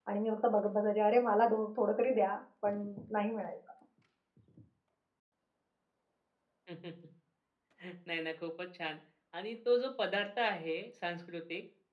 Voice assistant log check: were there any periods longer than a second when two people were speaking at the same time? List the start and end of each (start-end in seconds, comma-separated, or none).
none